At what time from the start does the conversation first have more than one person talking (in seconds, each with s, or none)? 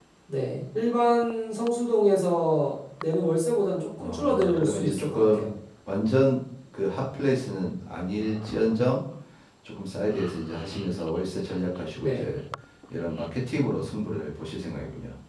4.0 s